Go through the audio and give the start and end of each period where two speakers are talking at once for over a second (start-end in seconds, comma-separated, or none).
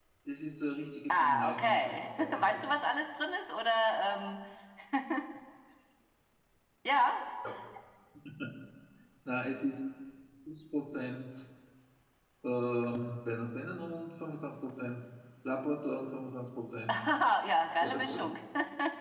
1.1-2.6